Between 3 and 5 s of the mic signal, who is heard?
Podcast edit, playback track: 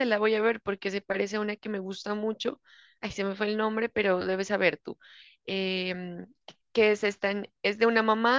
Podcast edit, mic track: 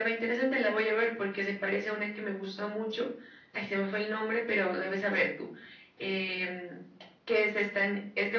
echo only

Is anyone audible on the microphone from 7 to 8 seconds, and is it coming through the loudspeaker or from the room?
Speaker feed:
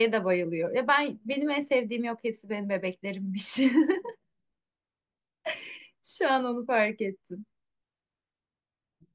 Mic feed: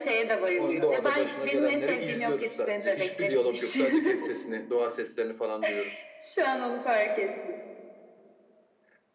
echo only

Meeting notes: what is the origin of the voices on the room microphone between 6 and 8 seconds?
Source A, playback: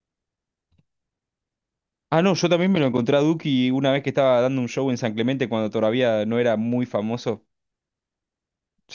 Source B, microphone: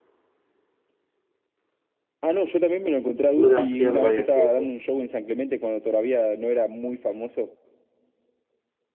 echo only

